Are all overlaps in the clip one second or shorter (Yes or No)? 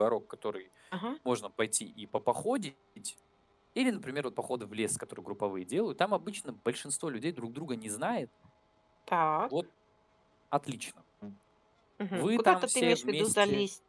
No